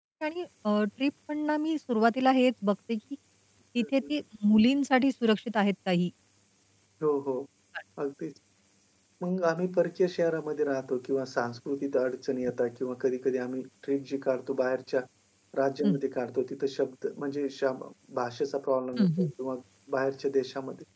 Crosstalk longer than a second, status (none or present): none